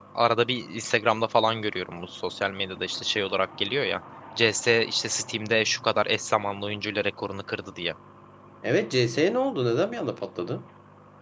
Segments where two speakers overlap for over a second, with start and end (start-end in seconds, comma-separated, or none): none